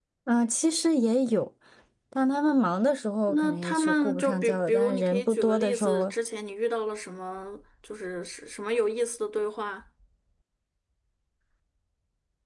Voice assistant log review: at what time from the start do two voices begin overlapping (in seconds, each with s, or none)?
3.3 s